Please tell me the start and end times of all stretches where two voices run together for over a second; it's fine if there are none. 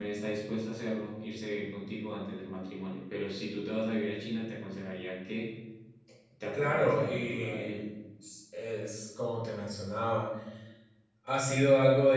6.5-7.8

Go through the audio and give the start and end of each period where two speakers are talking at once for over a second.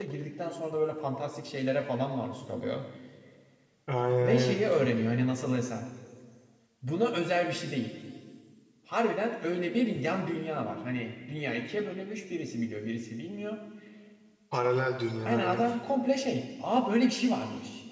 none

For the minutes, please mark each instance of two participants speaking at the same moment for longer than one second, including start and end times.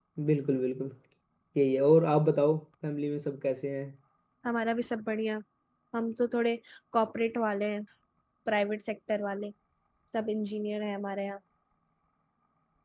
none

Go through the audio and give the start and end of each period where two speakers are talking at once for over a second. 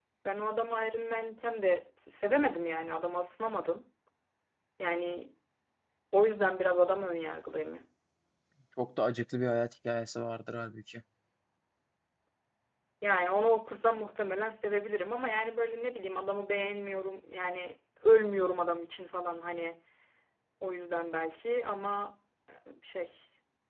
none

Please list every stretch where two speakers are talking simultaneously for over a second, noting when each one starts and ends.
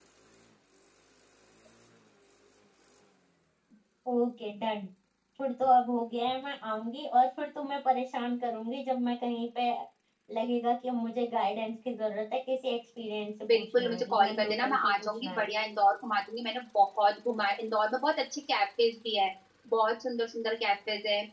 13.5-15.4

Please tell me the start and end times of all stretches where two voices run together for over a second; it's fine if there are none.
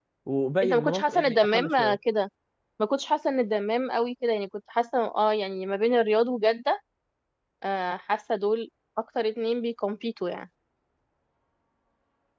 0.6-2.0

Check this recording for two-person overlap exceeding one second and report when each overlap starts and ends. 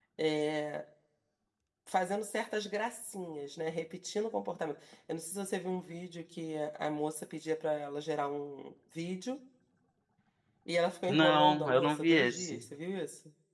11.1-12.6

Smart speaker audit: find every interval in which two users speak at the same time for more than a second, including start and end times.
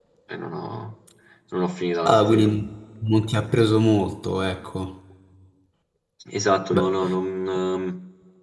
none

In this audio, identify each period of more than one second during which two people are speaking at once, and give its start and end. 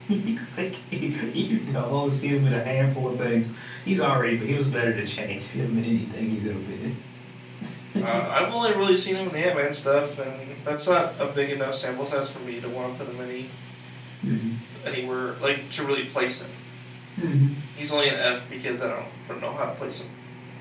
none

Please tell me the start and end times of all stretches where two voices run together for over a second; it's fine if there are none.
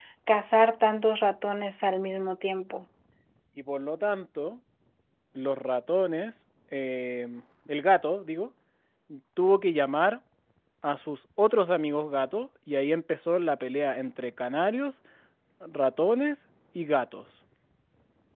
none

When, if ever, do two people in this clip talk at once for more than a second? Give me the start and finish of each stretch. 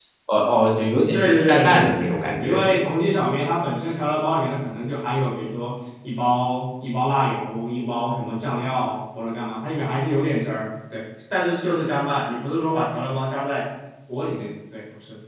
1.1-2.8

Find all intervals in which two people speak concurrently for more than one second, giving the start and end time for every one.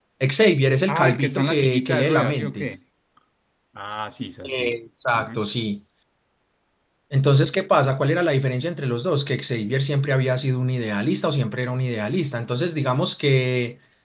0.9-2.7

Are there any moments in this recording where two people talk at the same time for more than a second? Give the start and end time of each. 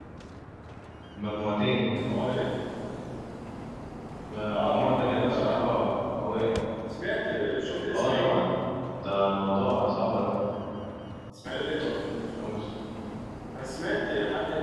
4.5-5.8

